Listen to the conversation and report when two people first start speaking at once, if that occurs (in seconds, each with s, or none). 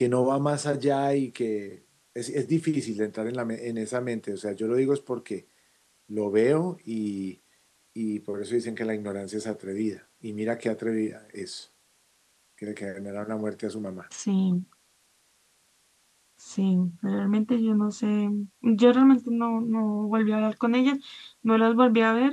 none